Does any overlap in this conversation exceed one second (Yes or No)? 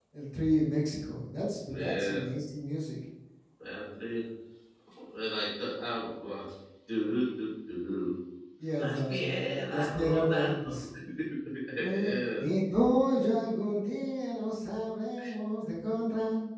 Yes